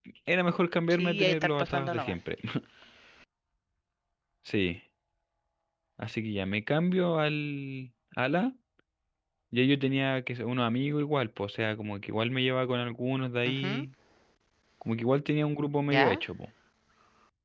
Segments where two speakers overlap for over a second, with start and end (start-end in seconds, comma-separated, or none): 0.9-2.2